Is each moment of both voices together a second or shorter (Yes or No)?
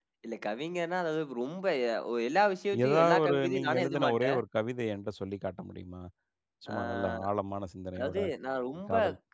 No